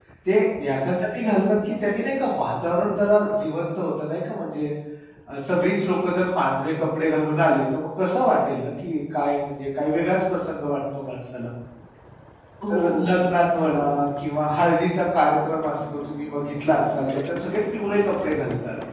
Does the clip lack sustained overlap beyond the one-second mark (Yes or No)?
No